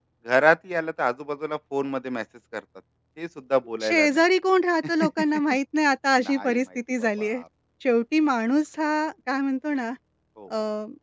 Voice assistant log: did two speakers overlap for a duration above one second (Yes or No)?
Yes